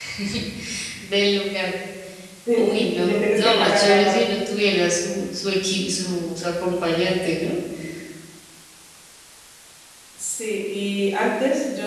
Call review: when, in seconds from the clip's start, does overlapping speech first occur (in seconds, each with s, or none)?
2.6 s